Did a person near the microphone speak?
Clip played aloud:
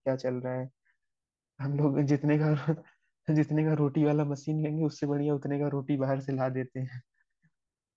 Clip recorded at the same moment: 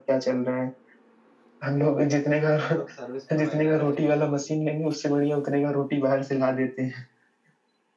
Yes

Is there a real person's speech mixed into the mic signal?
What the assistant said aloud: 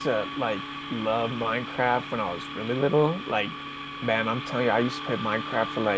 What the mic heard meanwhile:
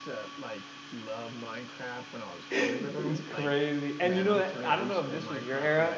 Yes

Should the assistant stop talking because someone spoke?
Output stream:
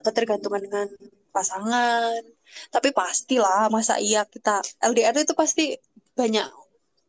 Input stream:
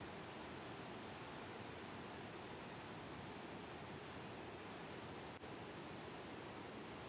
No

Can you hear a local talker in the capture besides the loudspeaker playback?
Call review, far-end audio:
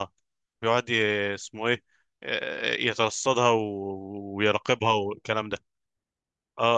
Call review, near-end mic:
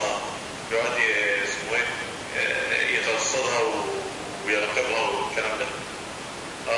No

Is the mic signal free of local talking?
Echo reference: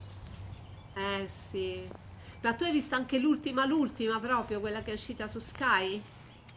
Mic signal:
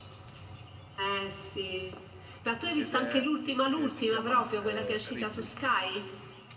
No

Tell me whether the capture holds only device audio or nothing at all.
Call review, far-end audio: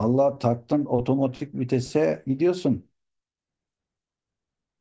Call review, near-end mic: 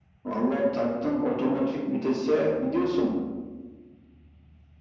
Yes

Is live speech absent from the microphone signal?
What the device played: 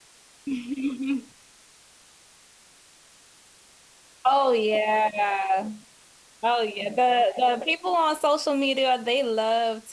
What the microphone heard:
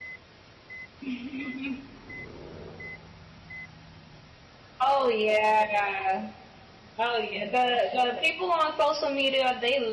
Yes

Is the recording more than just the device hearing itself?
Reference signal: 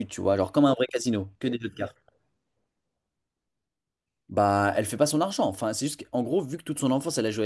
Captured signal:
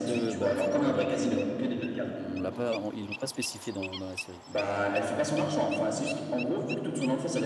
Yes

